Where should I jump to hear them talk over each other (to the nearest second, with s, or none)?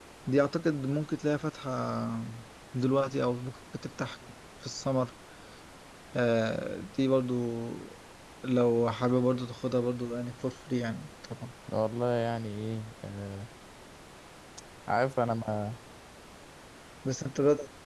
none